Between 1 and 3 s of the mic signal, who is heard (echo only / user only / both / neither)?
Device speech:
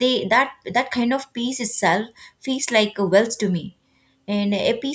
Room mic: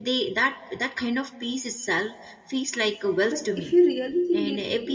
echo only